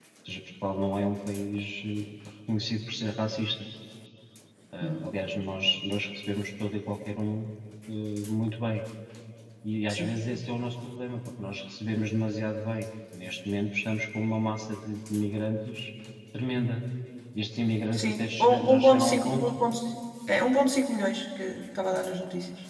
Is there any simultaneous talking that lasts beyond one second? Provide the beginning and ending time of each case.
17.9-19.4

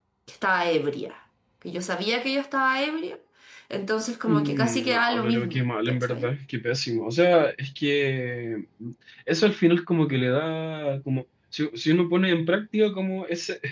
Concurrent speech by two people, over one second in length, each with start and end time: 4.3-6.3

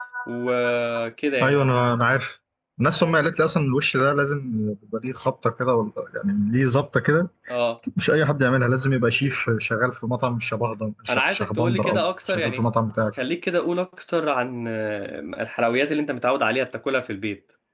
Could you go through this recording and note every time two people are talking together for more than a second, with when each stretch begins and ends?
11.1-12.6

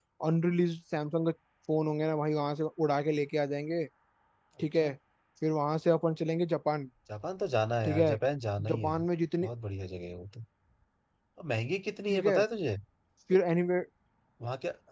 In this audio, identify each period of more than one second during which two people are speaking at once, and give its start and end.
none

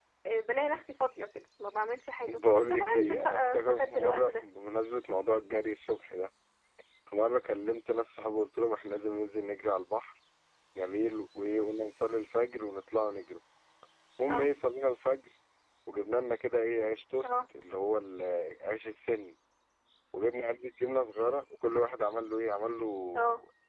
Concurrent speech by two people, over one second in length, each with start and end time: 2.3-4.3

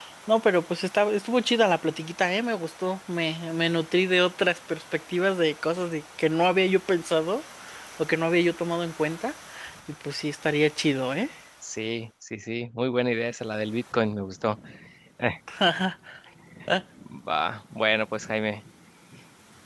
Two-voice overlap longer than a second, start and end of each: none

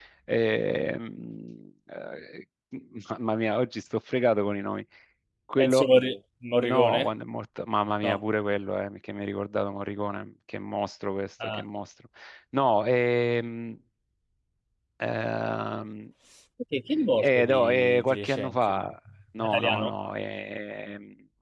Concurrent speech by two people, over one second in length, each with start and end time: 17.2-18.8

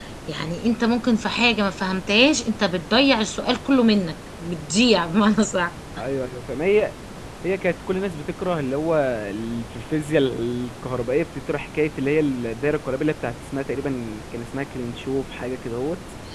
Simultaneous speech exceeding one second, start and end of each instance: none

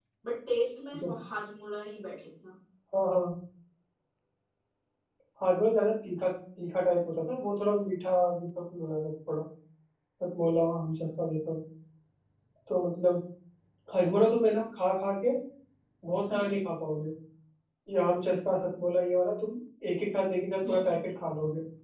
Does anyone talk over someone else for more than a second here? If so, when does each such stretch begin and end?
none

